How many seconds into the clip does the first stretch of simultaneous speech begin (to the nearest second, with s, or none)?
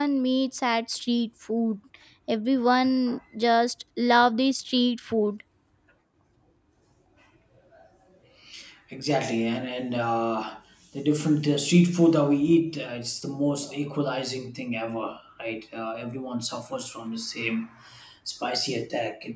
none